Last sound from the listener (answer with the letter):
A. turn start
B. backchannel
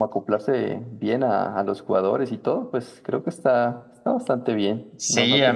A